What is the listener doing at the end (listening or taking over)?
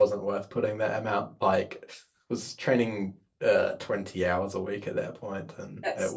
taking over